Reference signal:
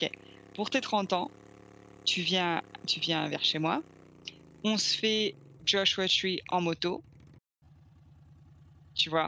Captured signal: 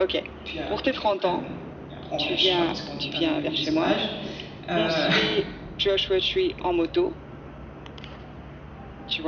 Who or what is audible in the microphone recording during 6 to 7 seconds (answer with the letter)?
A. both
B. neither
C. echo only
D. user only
C